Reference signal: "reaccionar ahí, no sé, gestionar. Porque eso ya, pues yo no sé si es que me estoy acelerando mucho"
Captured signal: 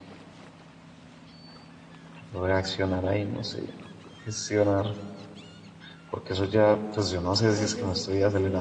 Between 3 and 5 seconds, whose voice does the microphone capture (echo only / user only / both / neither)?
echo only